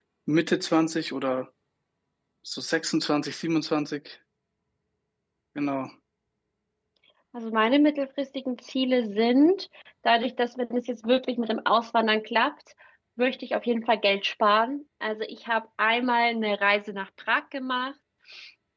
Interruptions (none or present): none